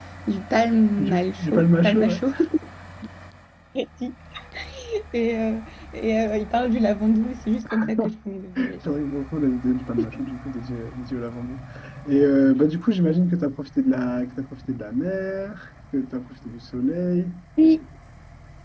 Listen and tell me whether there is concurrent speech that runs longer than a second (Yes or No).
Yes